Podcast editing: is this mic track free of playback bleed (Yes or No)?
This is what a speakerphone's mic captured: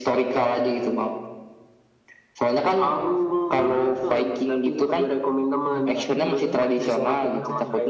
No